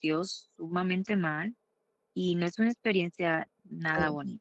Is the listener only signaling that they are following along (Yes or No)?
No